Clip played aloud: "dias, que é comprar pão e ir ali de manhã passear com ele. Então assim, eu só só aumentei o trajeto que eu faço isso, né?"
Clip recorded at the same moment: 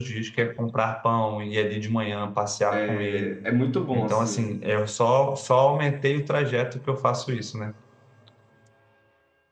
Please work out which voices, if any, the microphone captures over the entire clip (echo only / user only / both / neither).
both